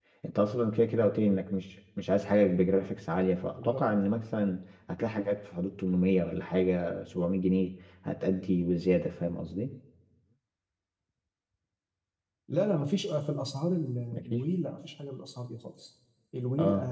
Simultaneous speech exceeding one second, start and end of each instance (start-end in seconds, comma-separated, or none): none